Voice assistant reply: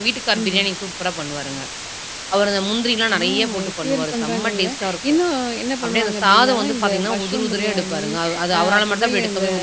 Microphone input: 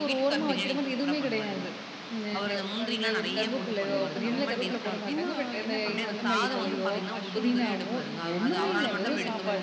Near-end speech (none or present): present